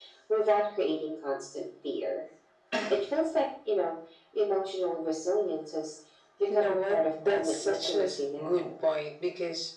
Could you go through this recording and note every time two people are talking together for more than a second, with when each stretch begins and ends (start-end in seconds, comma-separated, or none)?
6.5-8.7